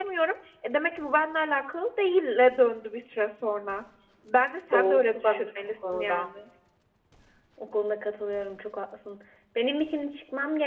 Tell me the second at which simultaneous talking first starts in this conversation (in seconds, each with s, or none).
4.7 s